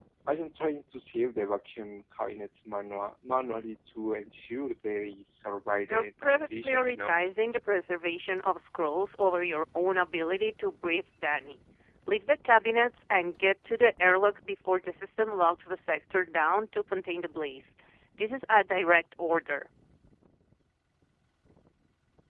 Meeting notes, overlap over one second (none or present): present